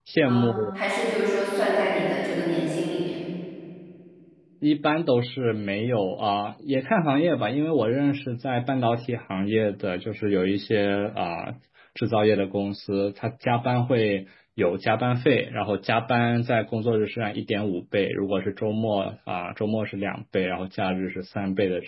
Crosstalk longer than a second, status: none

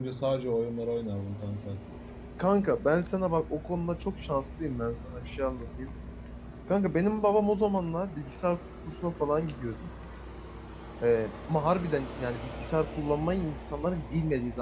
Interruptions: none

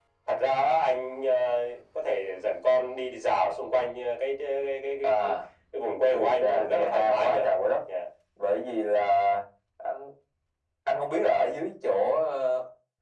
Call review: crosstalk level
present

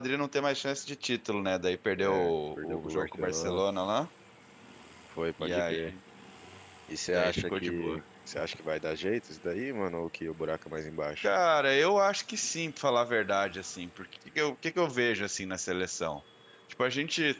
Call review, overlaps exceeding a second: present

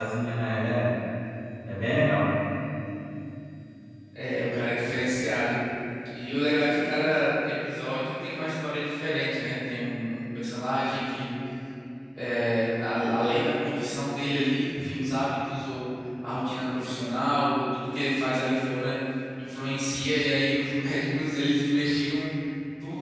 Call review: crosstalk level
none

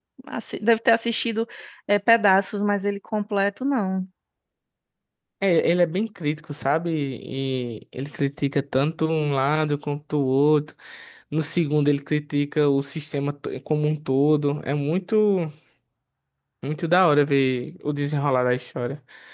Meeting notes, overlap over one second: none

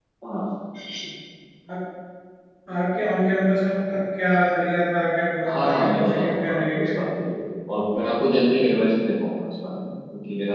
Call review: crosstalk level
present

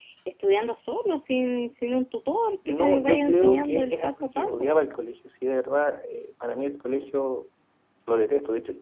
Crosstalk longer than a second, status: present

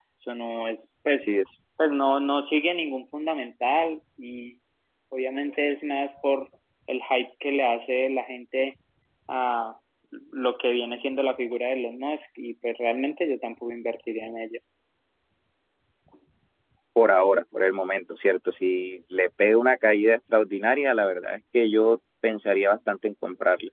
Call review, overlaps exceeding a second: none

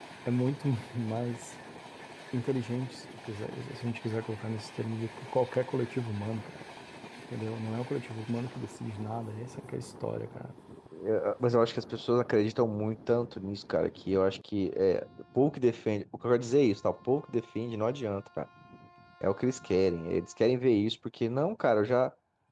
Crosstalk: none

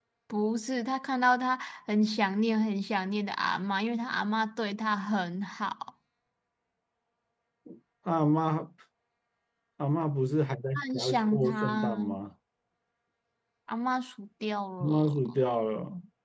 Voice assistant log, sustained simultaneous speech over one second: present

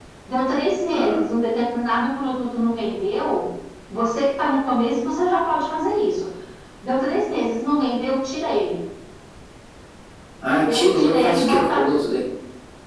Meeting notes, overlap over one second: present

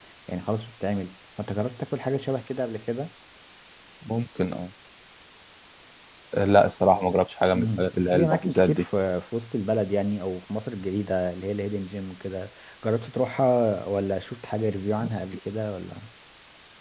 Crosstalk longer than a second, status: present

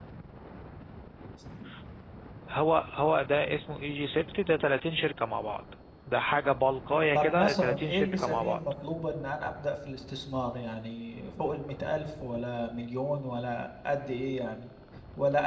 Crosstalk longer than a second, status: present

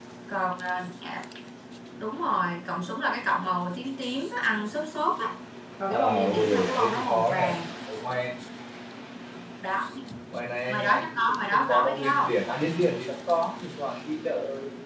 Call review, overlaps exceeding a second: present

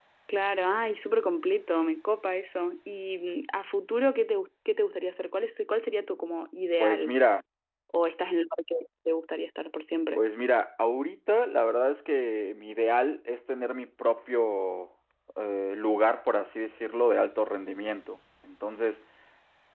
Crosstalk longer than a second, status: none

